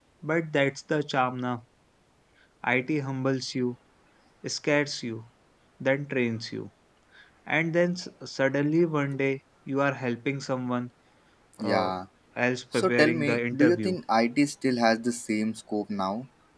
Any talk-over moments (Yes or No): Yes